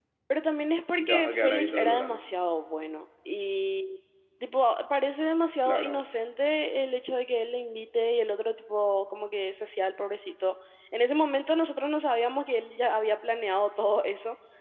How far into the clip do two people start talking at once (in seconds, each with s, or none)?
1.0 s